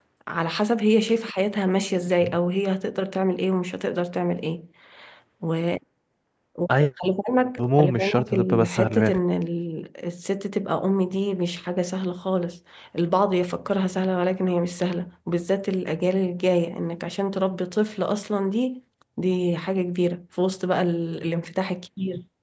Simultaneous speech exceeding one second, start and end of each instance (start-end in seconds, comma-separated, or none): 7.6-9.2